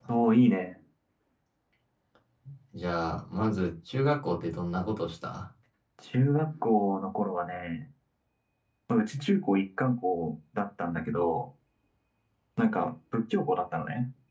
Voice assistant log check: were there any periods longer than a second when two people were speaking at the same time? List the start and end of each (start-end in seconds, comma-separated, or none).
none